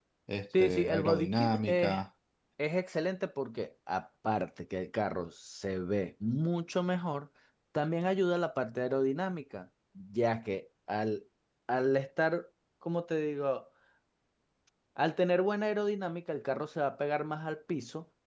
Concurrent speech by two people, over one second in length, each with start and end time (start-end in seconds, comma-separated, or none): 0.6-1.9